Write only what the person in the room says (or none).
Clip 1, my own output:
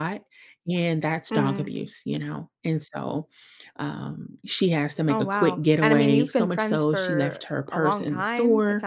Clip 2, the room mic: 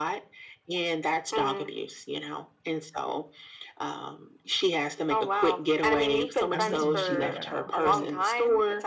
I wouldn't do that at all, so,